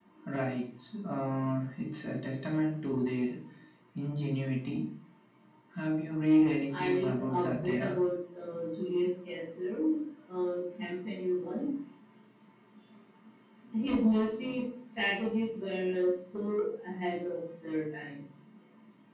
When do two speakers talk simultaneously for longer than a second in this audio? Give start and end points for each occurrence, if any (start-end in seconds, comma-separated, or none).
6.7-8.0